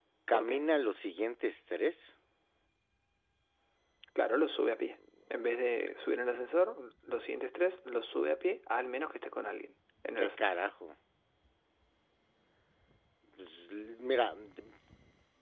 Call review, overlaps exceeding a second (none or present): none